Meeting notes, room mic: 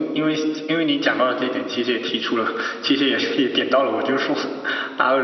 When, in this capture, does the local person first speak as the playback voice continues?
none

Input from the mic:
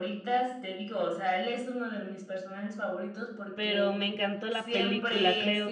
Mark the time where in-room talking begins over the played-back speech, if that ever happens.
4 s

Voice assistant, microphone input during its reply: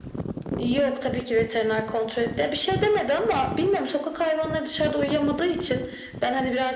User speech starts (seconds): none

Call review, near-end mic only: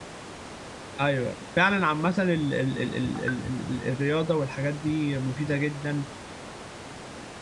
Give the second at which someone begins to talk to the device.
1 s

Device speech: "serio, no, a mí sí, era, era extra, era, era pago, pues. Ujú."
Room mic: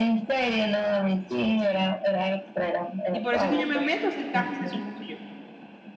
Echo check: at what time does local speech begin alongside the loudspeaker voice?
3 s

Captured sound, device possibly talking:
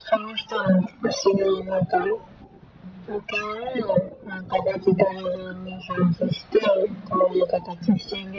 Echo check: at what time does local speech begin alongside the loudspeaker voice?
none

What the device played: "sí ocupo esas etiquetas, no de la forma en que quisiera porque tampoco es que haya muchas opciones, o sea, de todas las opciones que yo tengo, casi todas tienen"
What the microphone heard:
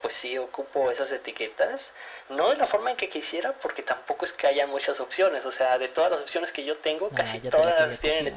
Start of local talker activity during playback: 7 s

